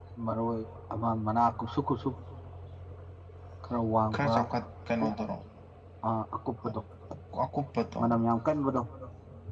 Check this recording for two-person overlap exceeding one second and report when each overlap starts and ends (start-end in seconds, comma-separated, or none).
none